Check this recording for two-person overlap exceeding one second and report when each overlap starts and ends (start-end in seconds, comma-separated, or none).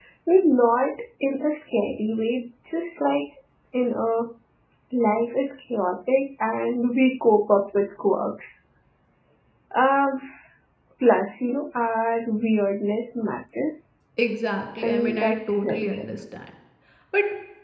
14.8-16.1